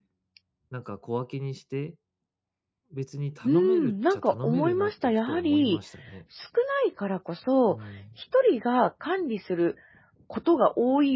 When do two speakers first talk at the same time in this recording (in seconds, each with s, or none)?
3.4 s